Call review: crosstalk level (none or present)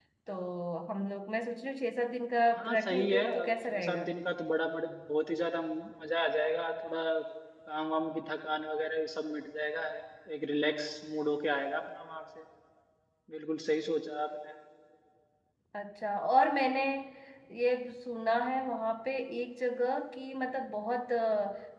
present